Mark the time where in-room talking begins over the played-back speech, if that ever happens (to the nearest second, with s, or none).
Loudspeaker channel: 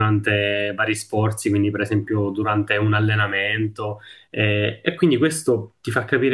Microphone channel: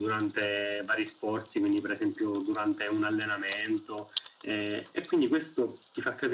none